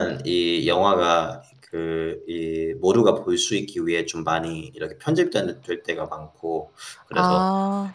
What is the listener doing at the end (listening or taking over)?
listening